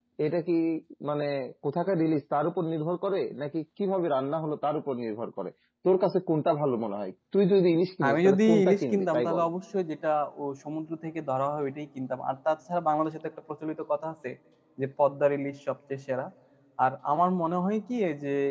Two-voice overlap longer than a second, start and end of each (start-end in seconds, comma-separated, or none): 8.1-9.4